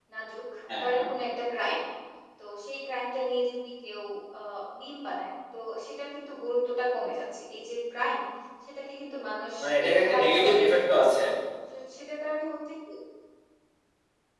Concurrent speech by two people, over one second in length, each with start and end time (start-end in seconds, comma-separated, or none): 9.6-11.1